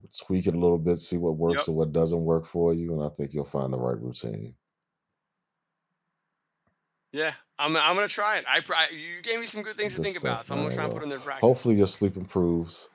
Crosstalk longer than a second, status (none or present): present